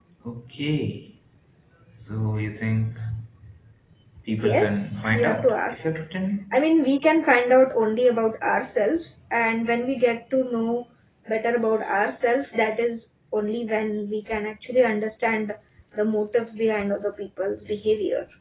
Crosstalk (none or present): present